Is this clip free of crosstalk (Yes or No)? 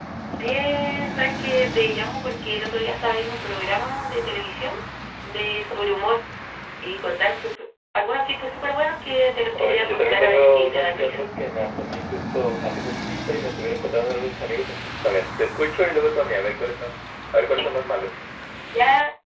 No